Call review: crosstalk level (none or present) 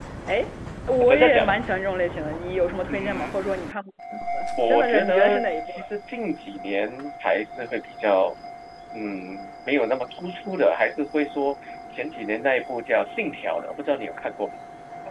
present